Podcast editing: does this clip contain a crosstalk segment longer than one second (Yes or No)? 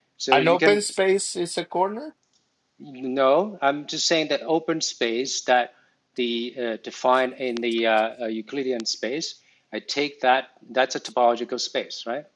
No